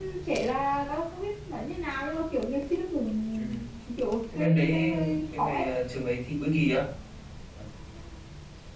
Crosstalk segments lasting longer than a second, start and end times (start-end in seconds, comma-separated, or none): 4.3-5.6